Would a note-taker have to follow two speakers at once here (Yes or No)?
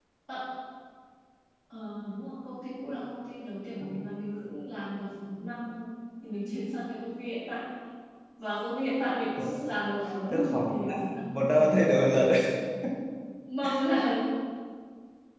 Yes